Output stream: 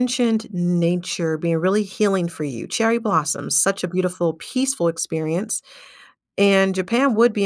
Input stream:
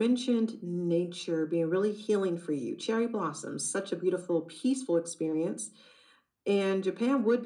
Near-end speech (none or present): none